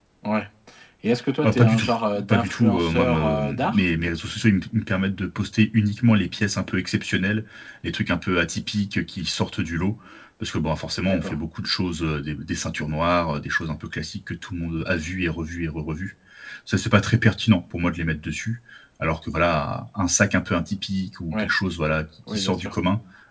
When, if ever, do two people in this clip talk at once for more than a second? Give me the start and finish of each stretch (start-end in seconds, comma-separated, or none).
2.3-3.8